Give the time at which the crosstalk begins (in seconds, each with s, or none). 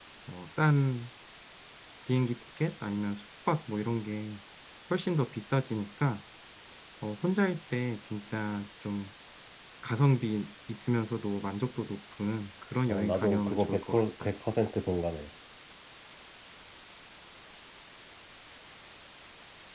12.9 s